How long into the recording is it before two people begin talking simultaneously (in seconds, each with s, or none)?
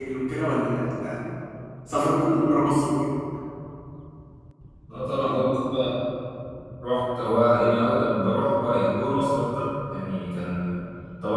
none